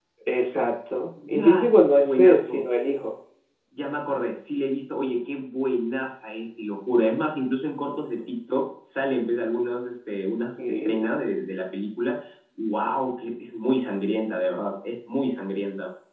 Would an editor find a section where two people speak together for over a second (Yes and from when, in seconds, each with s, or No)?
Yes, from 1.3 s